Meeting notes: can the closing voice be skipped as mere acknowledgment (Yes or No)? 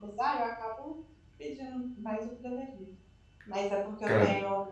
Yes